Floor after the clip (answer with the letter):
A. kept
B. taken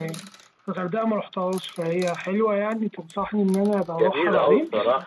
B